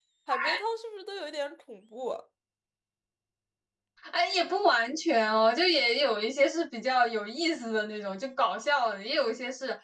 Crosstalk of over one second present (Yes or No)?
No